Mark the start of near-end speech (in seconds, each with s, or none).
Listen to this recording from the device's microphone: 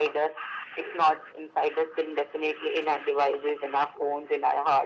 none